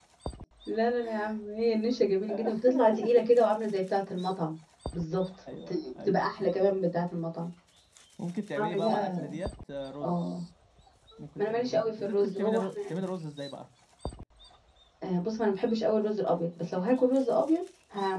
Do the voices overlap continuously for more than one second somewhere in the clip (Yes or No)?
Yes